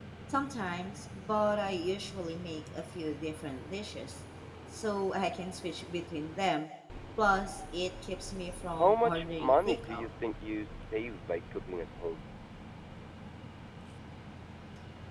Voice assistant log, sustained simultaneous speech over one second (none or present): present